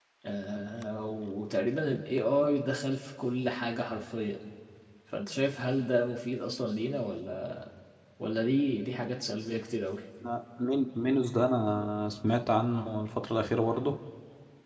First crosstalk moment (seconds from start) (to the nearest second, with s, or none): none